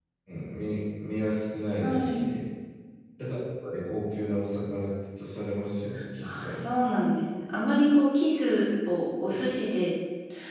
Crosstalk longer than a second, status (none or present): none